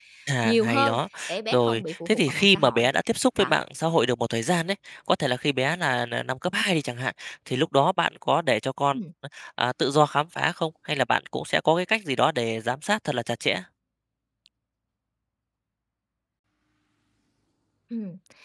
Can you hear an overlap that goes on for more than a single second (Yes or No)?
Yes